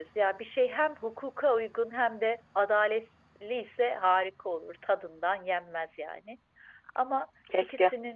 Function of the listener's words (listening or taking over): listening